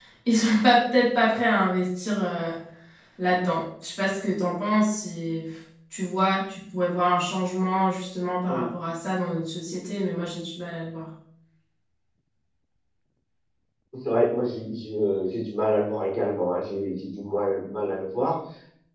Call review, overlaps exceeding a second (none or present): none